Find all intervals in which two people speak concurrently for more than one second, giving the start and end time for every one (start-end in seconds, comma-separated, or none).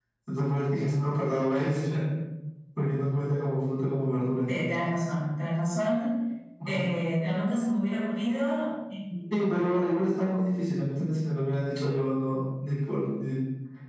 none